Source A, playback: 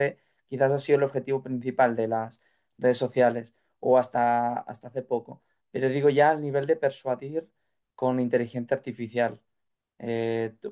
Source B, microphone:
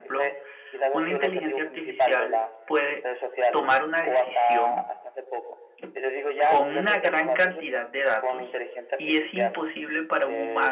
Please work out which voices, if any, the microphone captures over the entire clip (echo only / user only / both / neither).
both